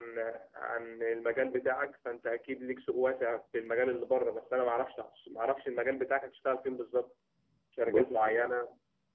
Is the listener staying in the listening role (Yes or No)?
Yes